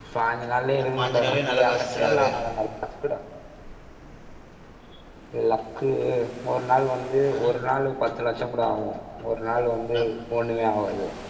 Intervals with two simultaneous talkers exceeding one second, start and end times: 0.8-2.3

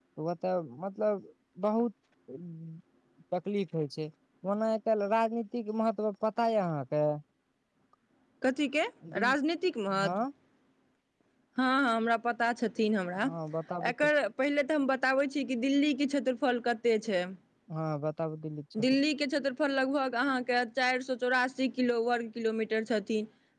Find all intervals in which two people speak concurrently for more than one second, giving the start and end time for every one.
none

